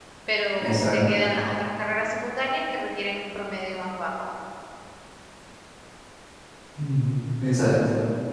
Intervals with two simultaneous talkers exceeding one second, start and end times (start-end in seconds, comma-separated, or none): none